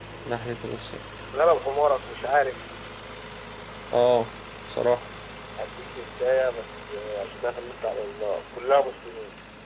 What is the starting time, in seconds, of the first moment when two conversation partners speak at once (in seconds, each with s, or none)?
none